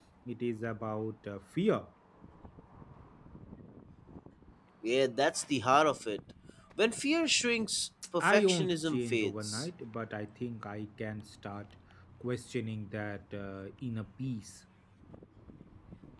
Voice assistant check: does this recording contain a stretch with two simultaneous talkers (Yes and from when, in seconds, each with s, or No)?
Yes, from 8.2 s